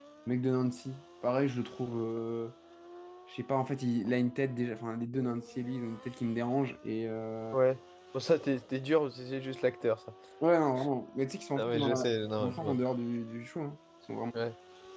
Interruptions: present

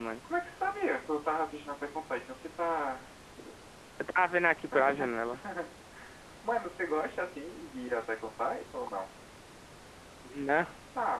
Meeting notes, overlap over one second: none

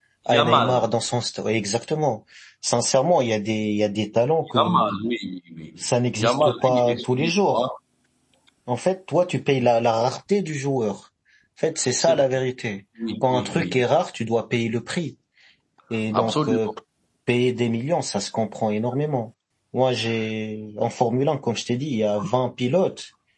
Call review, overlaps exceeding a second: present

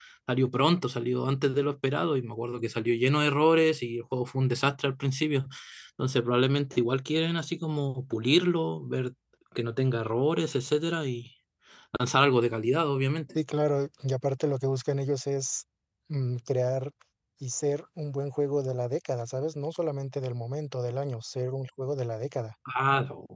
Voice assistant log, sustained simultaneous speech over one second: none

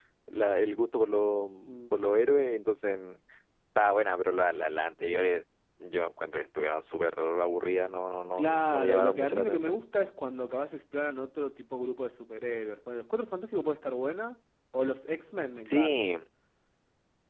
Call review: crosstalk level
present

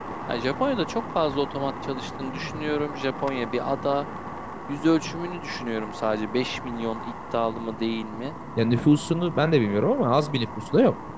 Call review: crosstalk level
none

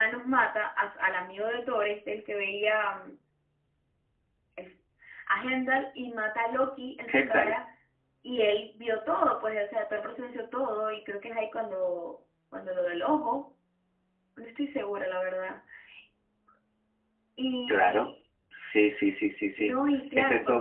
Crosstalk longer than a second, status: none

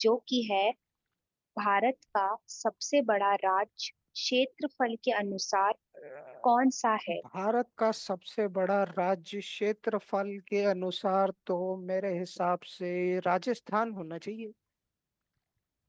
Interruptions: none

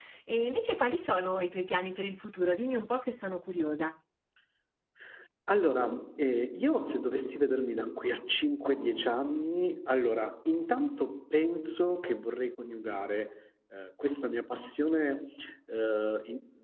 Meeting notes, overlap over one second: none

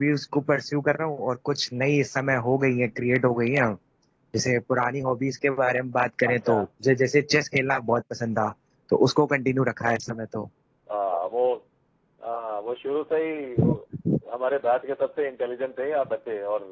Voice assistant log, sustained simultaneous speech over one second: none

